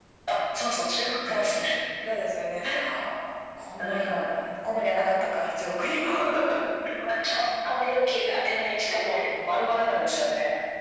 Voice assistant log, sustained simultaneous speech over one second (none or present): none